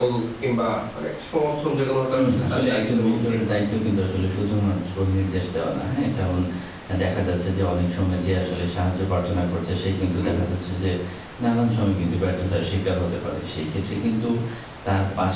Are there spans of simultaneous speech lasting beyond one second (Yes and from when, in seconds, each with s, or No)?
Yes, from 2.1 s